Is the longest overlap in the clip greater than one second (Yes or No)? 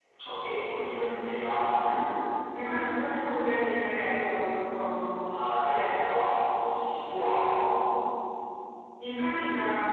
No